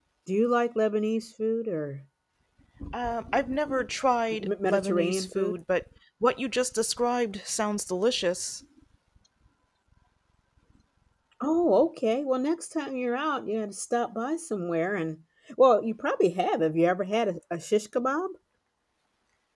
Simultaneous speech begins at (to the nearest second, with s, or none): 4 s